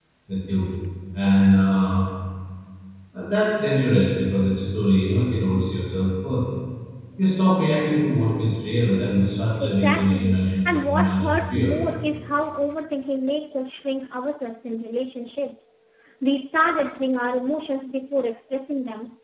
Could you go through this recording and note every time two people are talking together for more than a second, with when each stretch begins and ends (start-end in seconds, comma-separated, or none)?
9.6-11.7